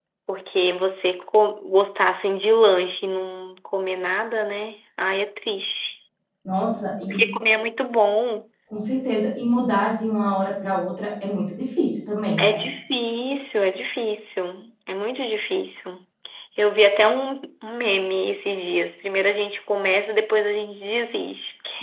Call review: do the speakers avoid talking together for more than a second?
Yes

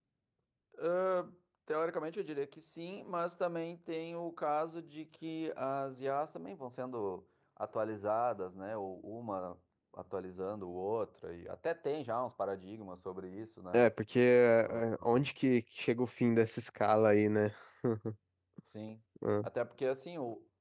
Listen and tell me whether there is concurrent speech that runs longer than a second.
No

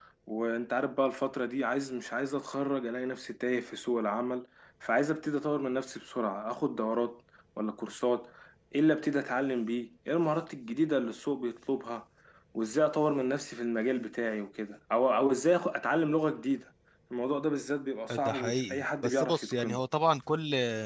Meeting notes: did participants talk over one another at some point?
Yes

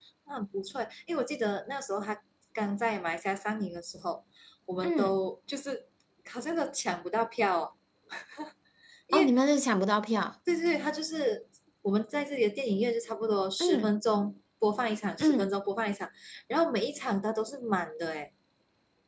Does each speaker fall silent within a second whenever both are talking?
Yes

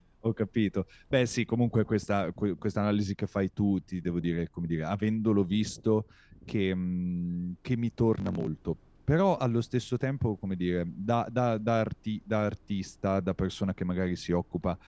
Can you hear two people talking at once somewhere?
No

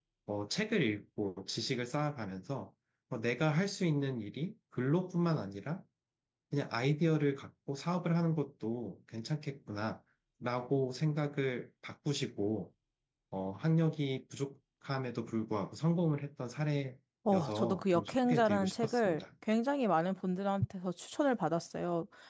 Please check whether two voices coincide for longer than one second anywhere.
Yes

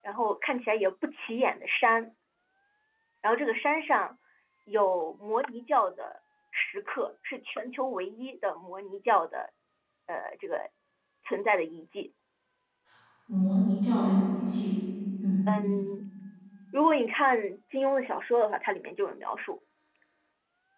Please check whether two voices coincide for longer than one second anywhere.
No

